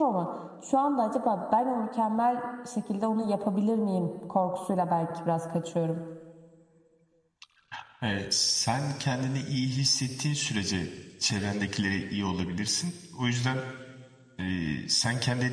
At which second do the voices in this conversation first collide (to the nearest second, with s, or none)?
none